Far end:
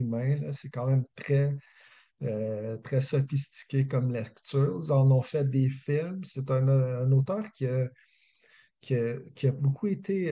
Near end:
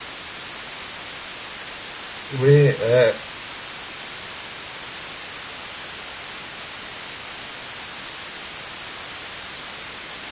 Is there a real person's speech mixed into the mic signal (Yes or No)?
Yes